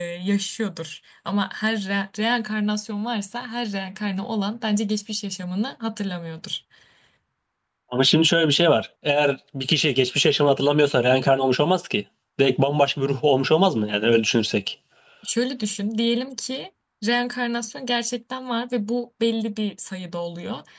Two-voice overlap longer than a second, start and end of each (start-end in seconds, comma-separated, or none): none